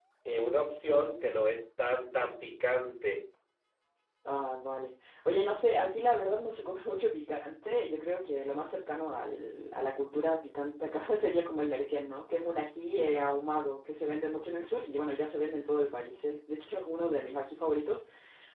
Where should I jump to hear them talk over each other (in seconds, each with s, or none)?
none